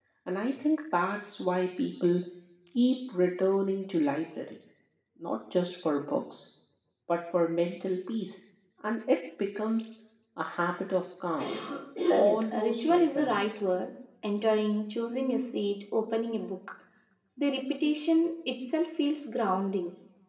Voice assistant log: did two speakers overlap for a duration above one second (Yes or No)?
Yes